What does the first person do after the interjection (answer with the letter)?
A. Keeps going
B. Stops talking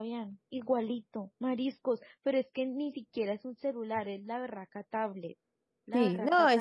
B